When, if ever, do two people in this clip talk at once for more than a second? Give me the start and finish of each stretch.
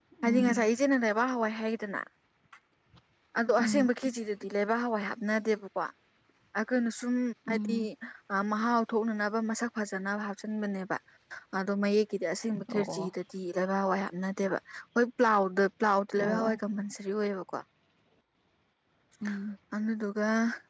none

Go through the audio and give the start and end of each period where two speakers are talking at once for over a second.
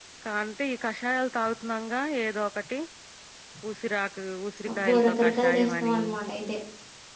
4.7-6.0

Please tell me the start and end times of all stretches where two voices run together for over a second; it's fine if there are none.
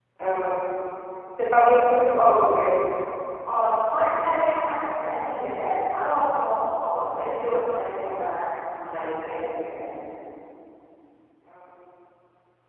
none

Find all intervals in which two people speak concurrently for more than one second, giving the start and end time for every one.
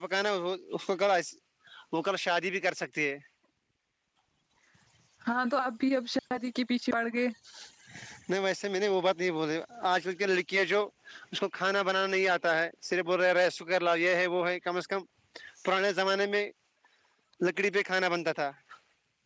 none

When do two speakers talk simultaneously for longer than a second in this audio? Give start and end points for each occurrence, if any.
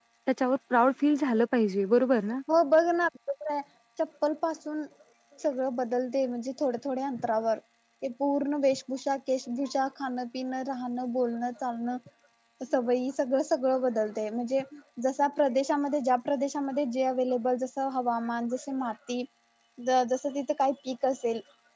none

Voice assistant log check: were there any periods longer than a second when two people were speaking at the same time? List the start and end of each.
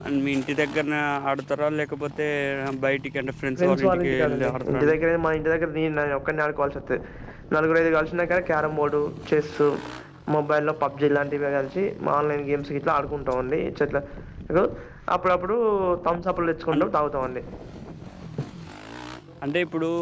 3.6-5.0

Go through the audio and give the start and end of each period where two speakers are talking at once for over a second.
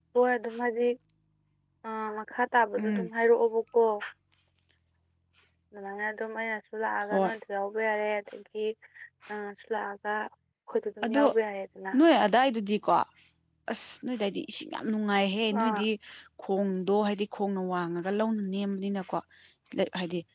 none

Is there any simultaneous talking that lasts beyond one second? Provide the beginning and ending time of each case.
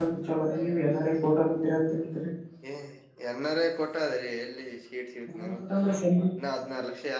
none

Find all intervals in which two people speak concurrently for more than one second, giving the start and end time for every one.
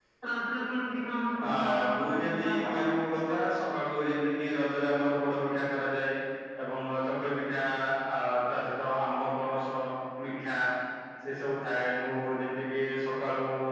1.5-2.8

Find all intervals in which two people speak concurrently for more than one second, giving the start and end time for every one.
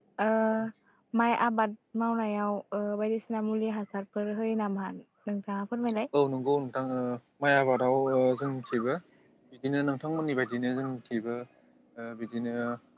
none

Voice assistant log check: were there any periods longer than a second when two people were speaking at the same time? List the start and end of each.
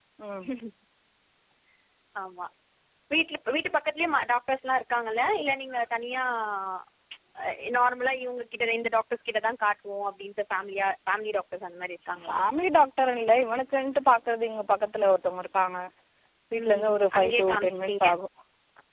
16.6-18.1

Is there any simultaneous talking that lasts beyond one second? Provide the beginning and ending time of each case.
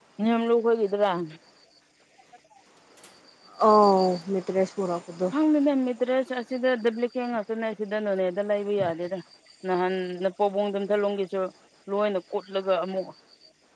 none

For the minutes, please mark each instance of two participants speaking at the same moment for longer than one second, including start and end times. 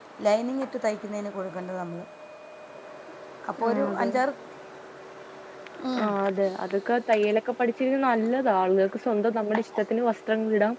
none

